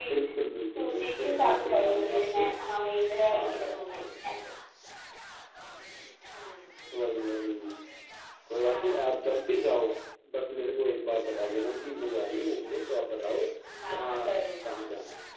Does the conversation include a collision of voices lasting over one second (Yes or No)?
Yes